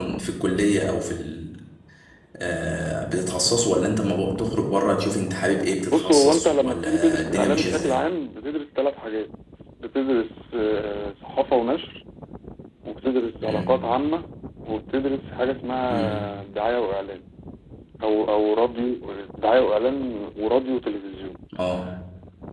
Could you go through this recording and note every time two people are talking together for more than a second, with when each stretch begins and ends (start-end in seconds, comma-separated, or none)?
5.9-8.0